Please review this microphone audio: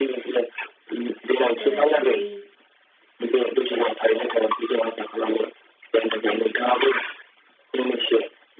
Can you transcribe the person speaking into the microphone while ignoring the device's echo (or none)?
बोराय, बुरै,